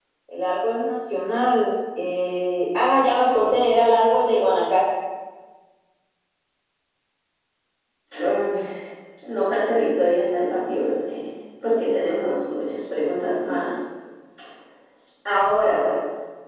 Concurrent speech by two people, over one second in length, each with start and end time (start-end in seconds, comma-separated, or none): none